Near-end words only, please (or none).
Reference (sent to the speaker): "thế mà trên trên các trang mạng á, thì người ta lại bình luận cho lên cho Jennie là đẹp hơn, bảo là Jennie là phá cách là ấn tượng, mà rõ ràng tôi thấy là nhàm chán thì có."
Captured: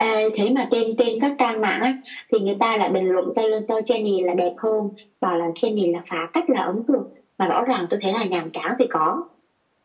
none